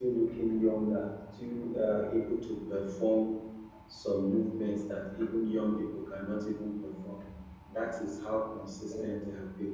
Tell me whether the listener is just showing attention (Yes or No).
Yes